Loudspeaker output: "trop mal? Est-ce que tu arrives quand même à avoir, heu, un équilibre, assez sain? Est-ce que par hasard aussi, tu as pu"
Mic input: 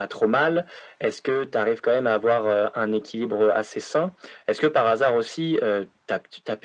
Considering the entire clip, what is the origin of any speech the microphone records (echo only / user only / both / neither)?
echo only